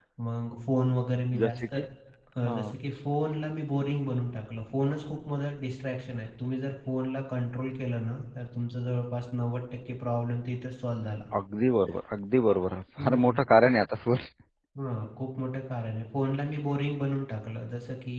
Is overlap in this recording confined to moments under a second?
Yes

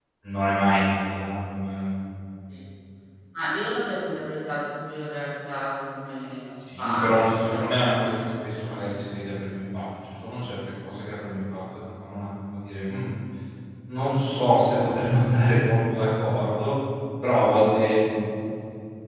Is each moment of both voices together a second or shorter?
No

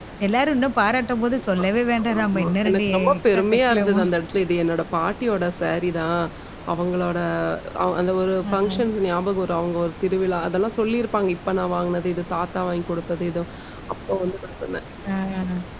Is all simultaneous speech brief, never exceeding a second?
No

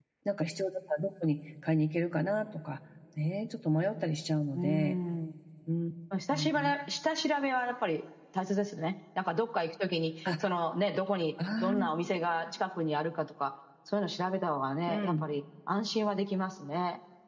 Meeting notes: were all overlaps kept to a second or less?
Yes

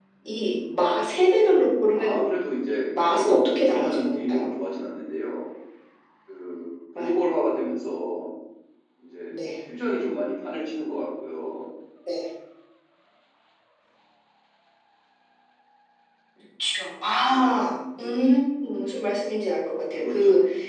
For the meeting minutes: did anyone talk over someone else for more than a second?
Yes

